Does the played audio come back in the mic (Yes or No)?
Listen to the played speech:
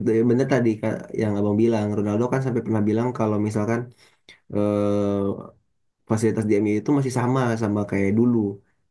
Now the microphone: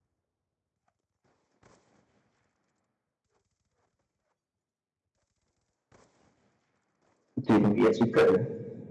No